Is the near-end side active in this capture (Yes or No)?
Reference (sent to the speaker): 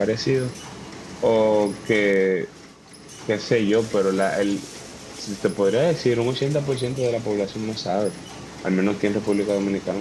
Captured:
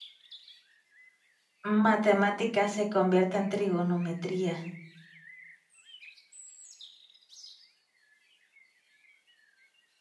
Yes